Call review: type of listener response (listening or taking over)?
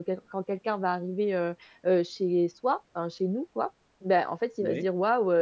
listening